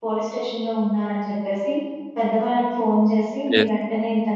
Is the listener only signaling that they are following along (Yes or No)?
Yes